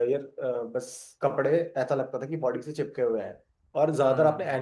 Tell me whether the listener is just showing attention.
Yes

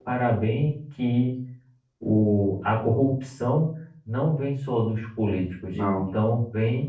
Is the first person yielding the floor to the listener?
No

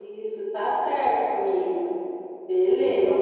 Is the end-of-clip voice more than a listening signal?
Yes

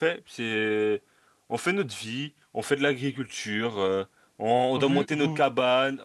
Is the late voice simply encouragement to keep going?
Yes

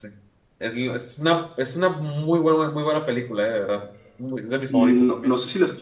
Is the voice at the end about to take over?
Yes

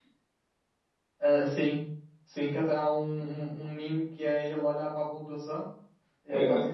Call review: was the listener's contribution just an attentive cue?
Yes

